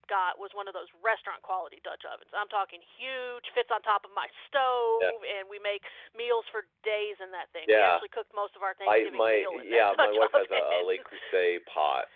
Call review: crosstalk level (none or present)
present